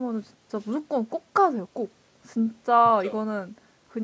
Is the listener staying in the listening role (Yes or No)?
Yes